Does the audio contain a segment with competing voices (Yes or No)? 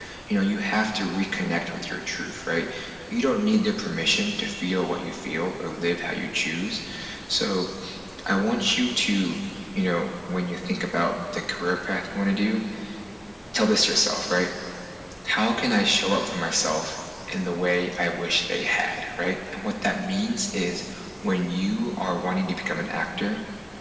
No